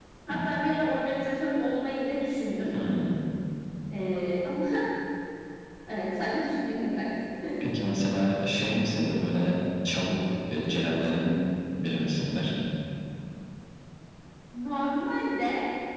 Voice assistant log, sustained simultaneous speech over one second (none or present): none